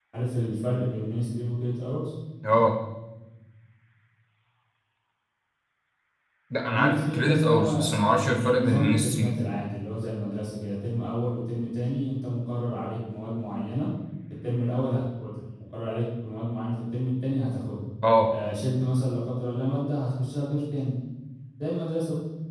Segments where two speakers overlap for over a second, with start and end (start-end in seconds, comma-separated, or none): 6.7-9.4